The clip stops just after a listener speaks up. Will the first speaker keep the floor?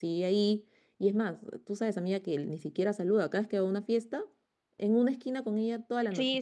No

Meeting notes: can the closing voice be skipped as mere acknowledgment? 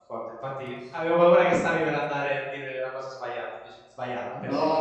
No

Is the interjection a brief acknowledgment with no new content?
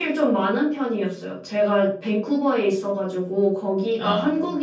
Yes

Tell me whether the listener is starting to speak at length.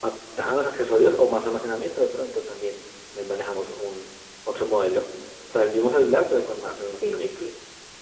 Yes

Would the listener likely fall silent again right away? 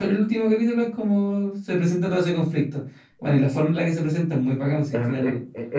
No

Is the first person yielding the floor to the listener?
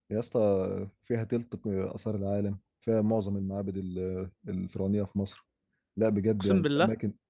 No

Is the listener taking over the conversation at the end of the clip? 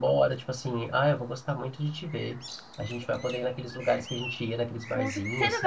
Yes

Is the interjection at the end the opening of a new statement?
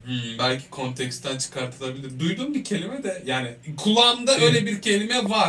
No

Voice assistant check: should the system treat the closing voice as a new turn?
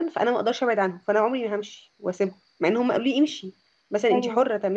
No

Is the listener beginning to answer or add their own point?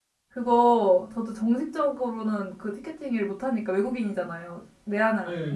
No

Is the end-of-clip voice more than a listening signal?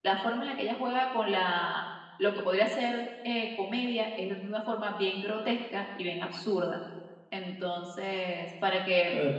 Yes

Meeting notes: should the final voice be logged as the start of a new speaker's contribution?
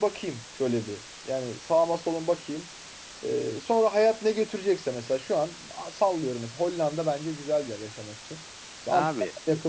No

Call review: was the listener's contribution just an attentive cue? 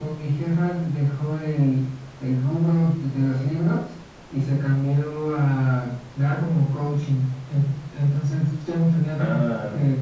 Yes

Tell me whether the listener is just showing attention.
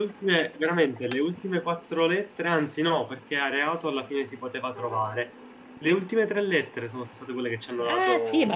No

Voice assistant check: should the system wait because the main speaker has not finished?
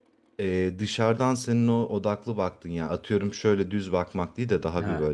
Yes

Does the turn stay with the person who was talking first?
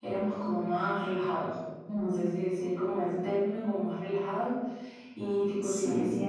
Yes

